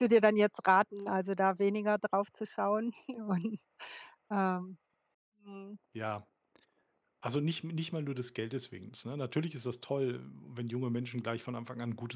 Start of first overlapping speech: none

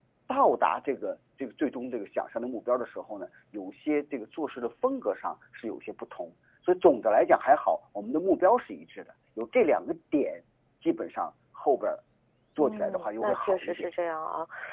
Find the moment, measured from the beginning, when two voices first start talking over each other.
12.6 s

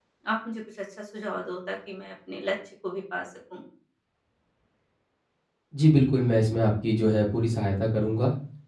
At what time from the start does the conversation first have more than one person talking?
none

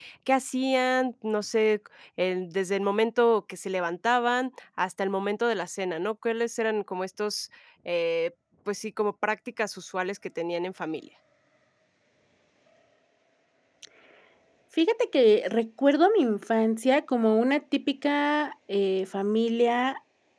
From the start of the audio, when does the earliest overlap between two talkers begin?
none

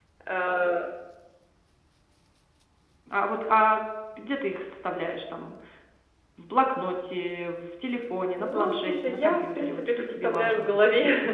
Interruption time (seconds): 8.4 s

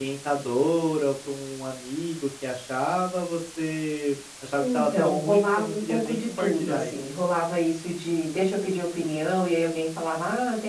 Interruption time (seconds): 4.6 s

